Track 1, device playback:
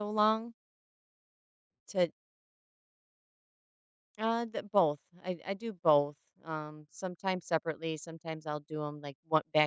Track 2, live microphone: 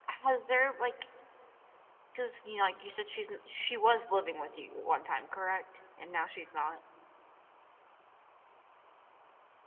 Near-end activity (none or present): present